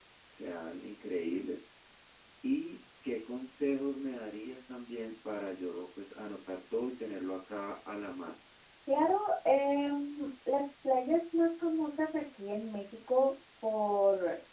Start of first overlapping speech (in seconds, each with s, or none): none